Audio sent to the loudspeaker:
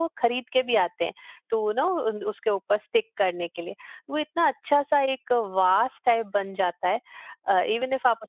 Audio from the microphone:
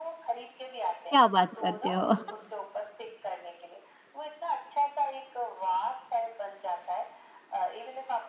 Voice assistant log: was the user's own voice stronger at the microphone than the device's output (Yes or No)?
Yes